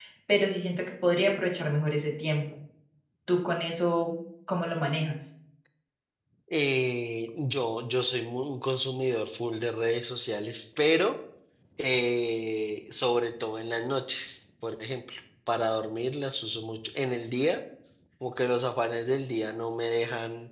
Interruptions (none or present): none